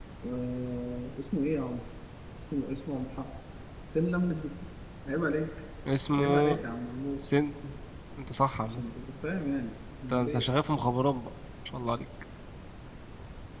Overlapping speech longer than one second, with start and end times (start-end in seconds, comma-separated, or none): none